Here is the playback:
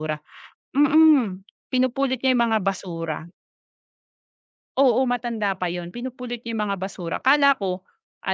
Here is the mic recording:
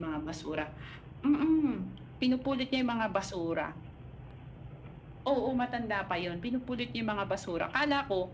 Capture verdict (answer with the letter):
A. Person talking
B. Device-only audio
B